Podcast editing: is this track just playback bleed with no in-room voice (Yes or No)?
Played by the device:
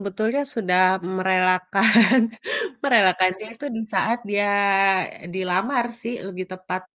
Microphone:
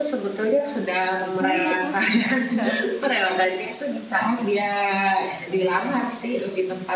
No